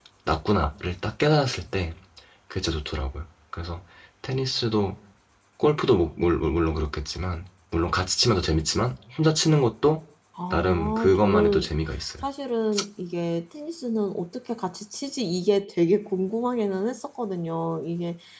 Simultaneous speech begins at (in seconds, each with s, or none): 10.5 s